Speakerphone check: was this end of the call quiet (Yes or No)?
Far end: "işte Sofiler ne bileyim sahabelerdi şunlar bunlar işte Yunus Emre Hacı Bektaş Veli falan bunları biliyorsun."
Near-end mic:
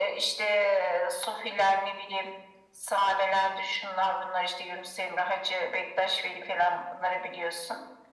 Yes